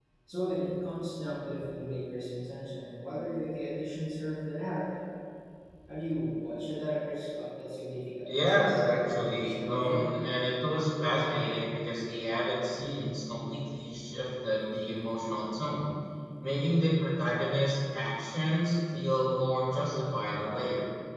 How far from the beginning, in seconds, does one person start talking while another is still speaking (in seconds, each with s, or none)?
8.3 s